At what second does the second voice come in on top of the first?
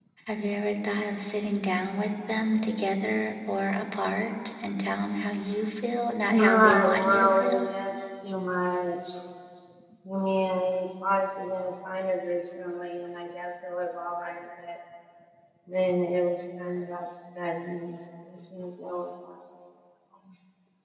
6.3 s

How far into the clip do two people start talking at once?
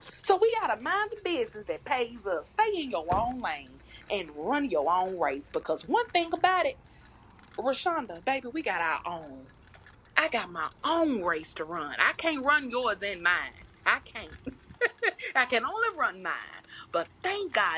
none

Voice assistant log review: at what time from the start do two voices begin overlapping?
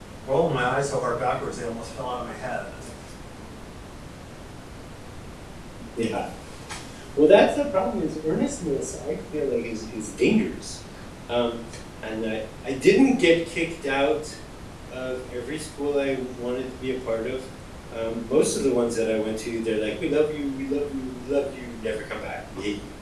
none

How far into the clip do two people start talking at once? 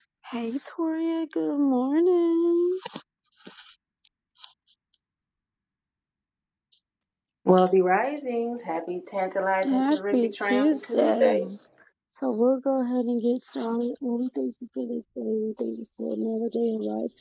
9.6 s

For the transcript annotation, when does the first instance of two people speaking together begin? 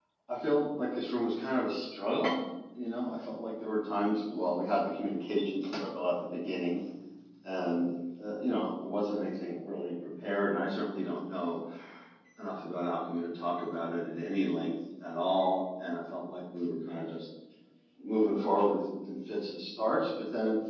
none

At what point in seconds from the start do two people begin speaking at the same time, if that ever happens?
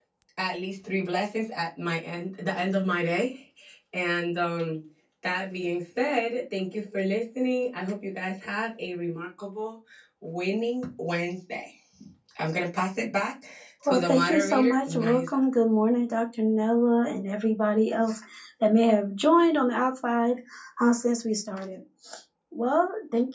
13.9 s

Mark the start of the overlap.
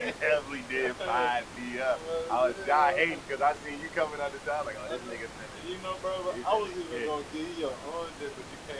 none

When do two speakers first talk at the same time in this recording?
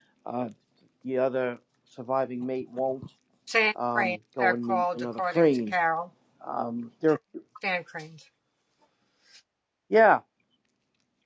4.0 s

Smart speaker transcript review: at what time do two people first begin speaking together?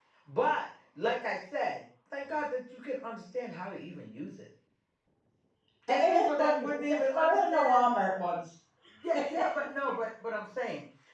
5.9 s

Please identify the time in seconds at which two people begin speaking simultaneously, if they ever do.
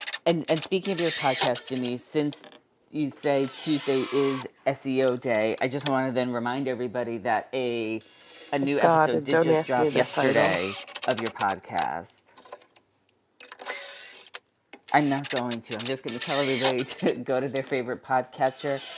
8.8 s

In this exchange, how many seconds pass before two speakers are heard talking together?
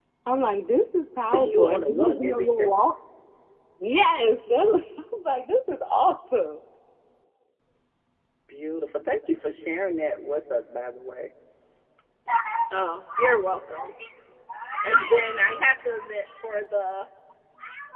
1.3 s

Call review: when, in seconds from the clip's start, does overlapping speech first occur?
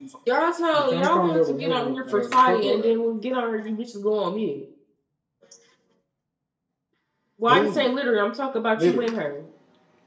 0.8 s

